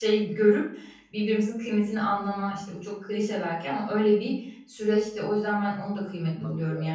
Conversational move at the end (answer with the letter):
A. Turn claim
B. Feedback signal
B